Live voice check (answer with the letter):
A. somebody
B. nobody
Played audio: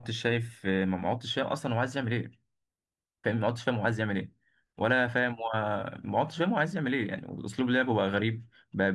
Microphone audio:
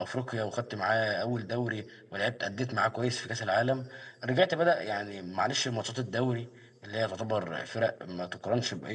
A